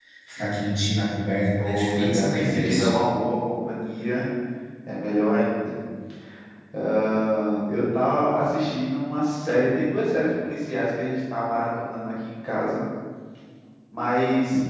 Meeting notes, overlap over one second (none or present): present